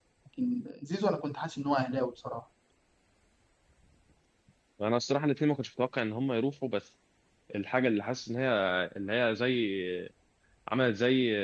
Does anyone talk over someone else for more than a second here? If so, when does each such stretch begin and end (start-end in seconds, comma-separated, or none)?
none